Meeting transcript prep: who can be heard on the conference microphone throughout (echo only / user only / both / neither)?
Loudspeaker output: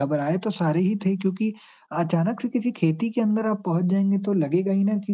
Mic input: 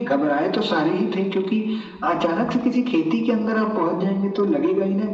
echo only